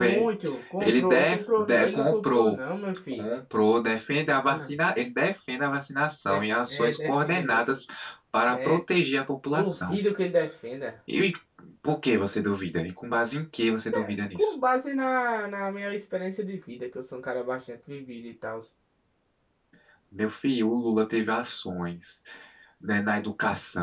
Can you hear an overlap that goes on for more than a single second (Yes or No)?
Yes